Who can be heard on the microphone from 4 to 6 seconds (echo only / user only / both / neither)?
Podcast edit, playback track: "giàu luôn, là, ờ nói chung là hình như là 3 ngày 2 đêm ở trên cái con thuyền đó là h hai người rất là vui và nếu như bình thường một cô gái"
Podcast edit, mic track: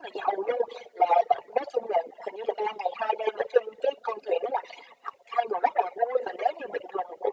echo only